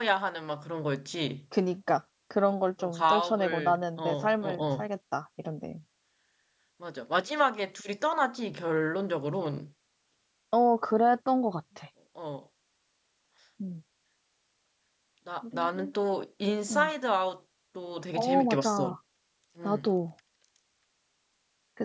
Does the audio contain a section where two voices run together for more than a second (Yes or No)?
Yes